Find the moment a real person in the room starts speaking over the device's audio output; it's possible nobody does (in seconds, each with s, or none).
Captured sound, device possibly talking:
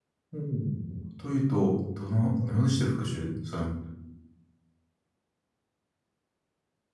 0.3 s